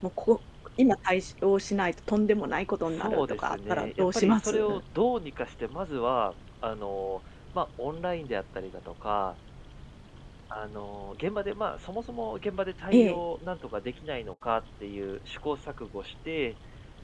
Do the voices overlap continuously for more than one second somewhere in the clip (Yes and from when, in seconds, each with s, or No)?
Yes, from 2.9 s